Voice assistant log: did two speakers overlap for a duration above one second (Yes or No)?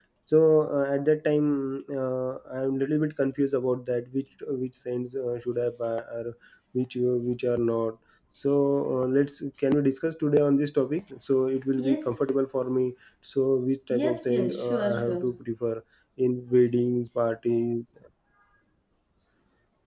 Yes